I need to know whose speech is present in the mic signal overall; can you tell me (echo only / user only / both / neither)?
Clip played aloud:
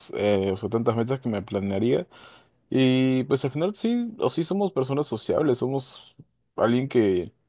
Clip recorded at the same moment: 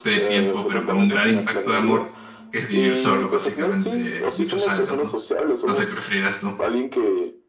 both